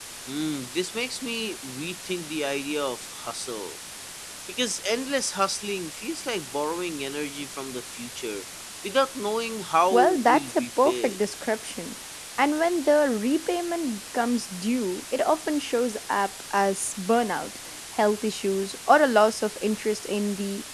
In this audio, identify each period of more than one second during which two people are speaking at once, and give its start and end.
9.9-11.2

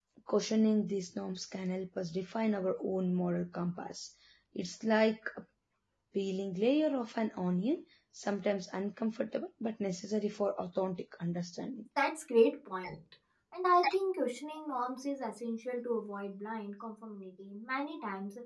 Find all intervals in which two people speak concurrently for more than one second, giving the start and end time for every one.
none

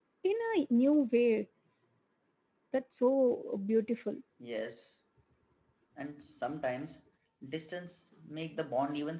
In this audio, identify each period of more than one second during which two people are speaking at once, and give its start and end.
none

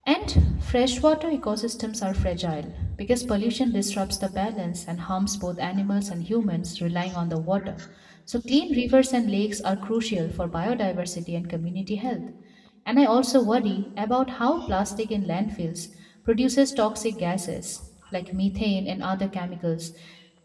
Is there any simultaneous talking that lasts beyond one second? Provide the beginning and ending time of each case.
none

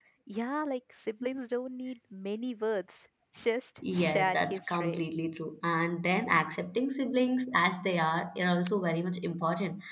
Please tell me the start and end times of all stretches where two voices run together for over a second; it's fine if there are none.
3.8-5.0

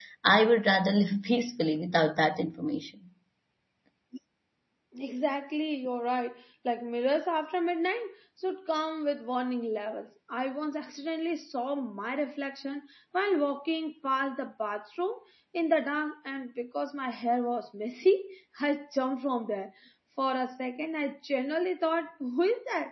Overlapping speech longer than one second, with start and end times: none

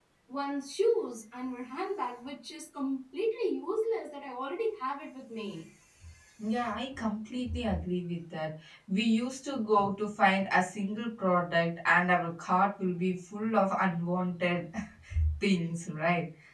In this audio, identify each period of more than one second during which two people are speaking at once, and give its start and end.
none

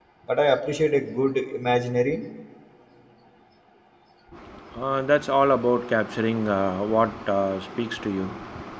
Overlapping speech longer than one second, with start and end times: none

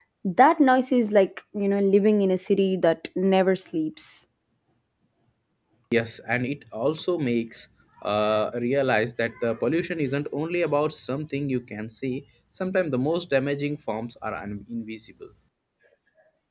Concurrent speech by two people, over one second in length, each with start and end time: none

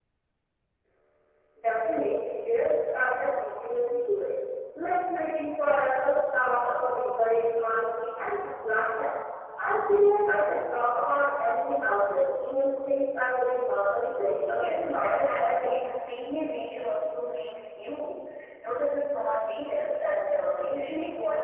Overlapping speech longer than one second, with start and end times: 14.2-15.7

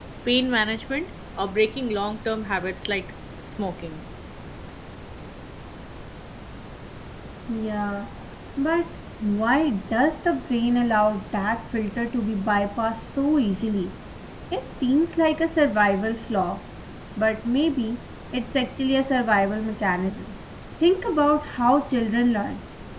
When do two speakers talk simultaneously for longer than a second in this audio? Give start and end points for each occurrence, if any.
none

